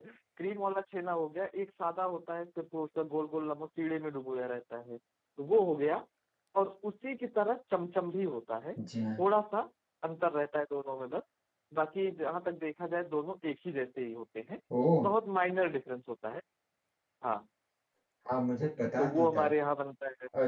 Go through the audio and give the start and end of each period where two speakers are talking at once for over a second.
none

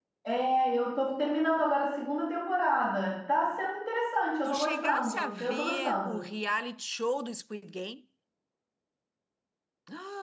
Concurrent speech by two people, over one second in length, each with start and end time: 4.4-6.2

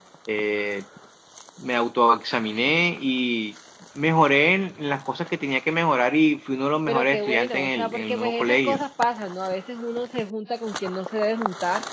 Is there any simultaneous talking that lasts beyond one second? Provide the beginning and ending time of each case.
6.9-8.8

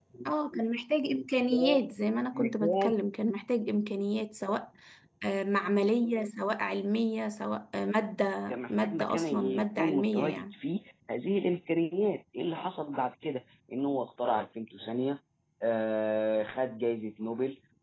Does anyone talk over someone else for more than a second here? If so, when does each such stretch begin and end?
8.7-10.5

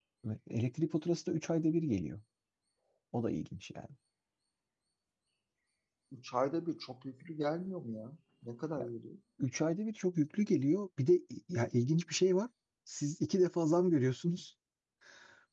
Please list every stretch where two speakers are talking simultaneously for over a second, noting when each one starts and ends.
none

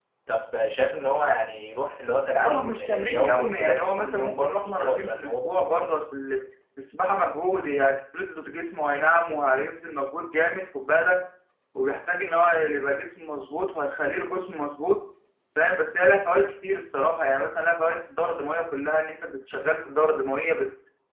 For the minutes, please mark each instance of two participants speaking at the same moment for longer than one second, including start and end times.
2.3-5.5

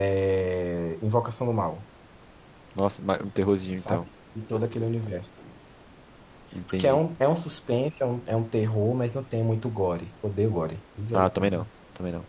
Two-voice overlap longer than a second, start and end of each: none

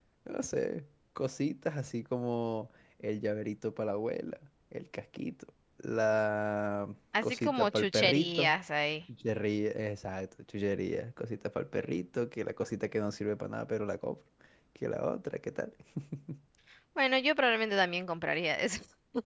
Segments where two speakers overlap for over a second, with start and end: 7.2-8.6

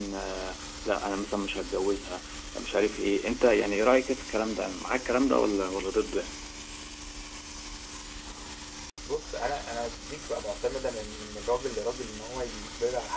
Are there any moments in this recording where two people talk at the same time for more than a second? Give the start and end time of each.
none

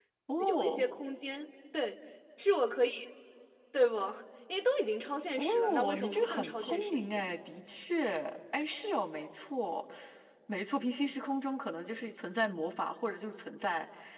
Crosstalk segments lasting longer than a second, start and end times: 5.4-7.2

